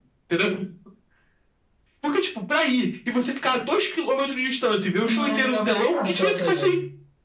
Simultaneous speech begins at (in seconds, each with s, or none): 5.0 s